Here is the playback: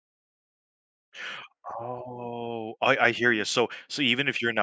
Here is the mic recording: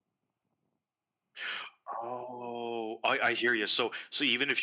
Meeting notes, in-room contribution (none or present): none